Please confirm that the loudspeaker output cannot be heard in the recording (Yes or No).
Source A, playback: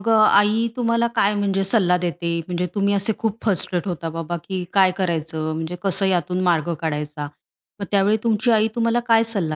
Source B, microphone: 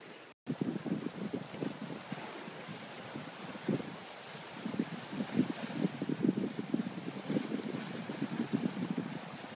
Yes